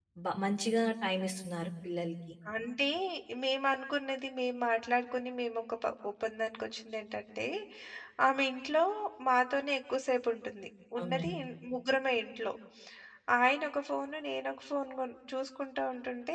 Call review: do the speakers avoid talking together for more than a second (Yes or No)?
Yes